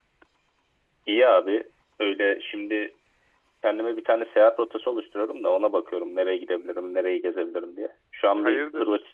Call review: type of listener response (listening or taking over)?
listening